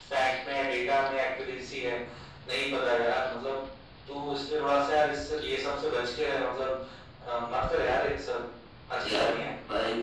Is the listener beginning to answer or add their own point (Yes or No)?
Yes